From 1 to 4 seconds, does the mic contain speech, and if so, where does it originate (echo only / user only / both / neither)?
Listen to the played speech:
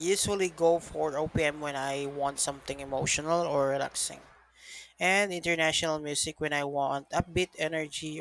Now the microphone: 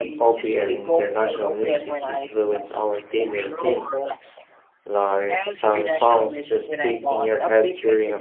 both